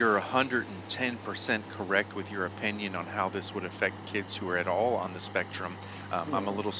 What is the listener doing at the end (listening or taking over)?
listening